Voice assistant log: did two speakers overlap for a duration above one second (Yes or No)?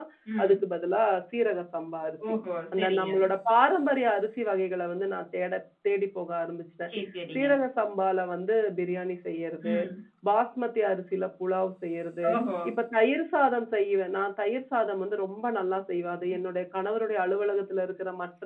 No